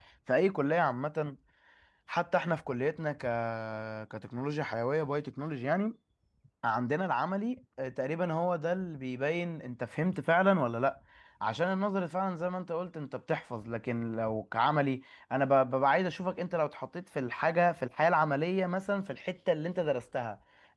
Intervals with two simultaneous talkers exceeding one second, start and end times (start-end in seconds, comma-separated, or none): none